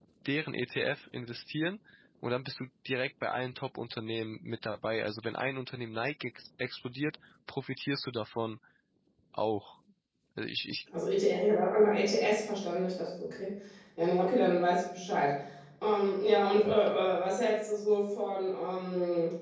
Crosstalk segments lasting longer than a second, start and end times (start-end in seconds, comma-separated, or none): none